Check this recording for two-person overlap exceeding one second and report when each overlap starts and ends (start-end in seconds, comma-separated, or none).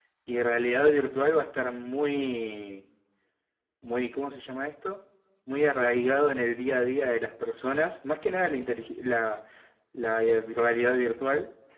none